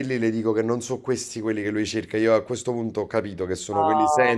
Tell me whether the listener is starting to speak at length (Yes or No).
Yes